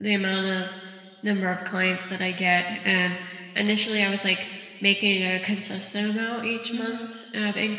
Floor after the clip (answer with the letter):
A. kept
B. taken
A